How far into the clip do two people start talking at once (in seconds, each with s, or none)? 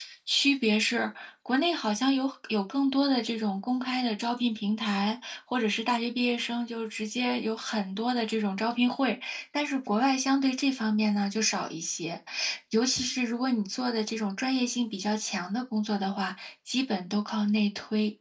none